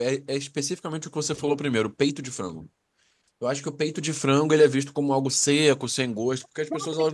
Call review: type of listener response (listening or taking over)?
taking over